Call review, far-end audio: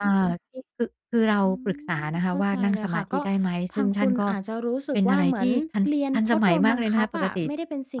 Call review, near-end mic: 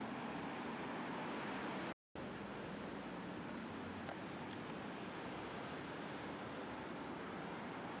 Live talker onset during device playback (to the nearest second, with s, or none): none